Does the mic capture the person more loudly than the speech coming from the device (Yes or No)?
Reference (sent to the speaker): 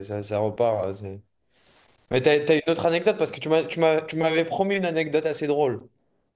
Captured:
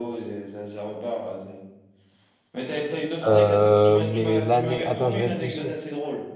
Yes